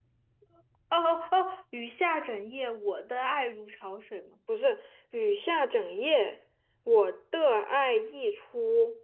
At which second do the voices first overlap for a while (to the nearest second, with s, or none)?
none